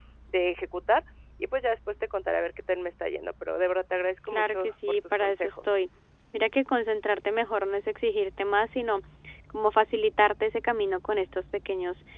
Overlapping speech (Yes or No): Yes